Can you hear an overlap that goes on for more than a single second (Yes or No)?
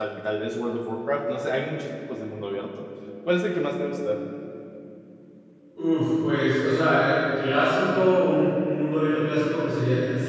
No